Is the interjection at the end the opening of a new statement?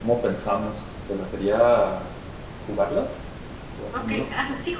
Yes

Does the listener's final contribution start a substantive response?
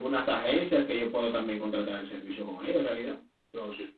Yes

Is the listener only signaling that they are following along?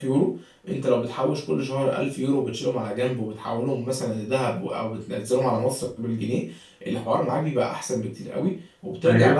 Yes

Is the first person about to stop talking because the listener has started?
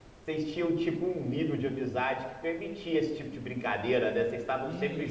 Yes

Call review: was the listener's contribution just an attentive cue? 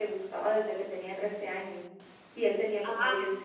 Yes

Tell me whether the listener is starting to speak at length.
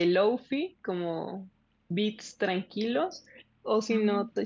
No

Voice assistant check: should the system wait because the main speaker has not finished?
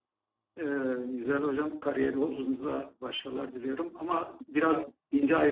Yes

